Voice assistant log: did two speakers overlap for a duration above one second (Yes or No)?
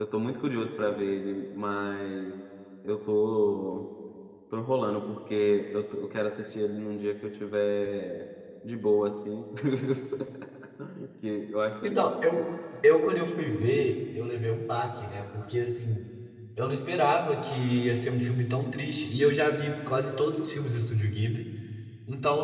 No